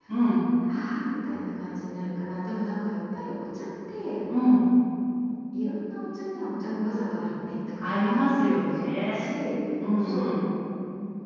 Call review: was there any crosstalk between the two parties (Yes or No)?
Yes